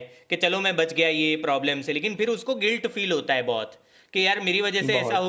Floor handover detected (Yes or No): No